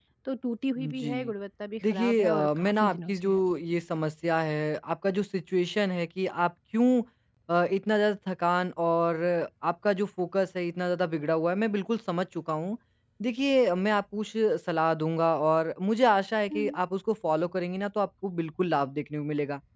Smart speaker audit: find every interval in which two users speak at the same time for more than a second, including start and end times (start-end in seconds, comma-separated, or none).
1.9-3.4